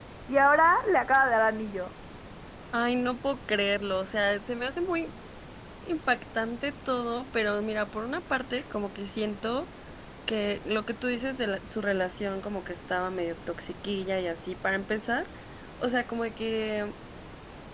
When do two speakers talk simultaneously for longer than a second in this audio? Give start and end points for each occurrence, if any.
none

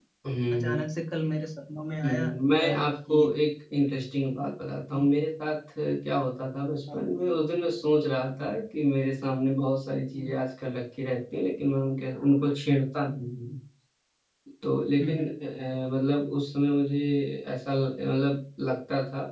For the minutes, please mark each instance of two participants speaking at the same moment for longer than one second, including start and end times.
2.0-3.3

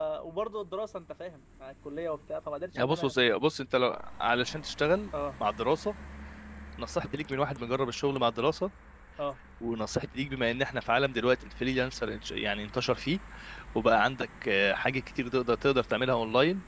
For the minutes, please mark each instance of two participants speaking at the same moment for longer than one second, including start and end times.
none

